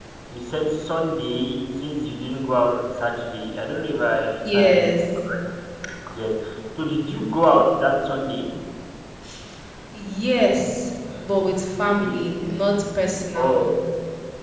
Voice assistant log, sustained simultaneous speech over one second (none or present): none